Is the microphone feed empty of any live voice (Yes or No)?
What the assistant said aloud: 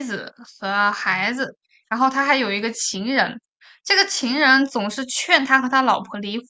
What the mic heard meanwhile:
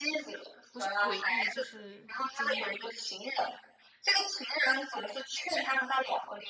No